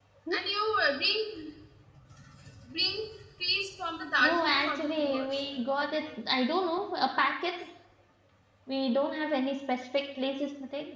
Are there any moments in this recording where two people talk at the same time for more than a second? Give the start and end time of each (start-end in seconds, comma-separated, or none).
4.2-5.6